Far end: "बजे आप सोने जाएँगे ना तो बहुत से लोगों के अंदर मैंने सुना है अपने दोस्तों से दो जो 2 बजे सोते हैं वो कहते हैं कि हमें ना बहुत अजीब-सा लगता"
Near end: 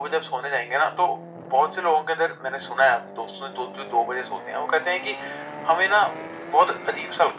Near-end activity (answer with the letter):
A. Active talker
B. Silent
B